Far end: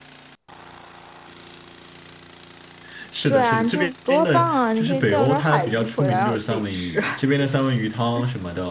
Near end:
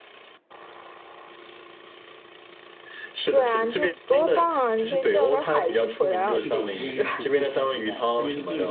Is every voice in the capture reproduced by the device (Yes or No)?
No